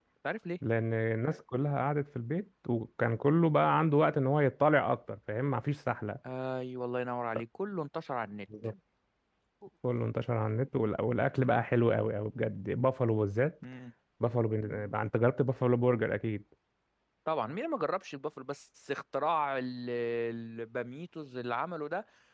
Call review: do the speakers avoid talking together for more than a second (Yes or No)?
Yes